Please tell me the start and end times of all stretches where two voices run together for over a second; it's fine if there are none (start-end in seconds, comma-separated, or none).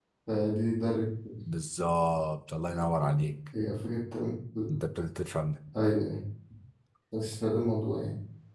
none